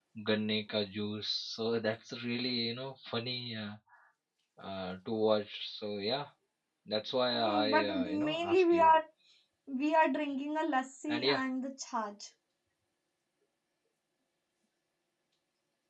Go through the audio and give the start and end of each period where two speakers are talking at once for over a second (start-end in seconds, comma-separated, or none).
7.3-8.9